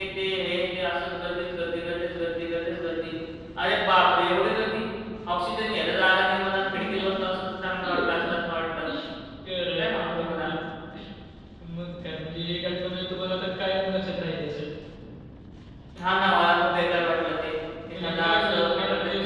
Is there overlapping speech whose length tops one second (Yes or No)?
Yes